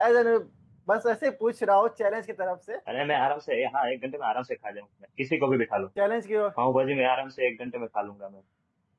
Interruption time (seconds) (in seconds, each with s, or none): none